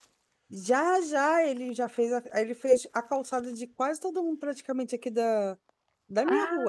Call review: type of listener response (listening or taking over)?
taking over